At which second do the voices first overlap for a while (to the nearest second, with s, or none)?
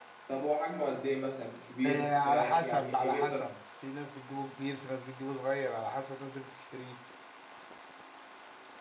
2 s